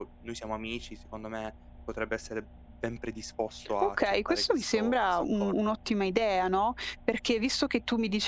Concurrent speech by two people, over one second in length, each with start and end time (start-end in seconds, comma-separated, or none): 3.8-5.5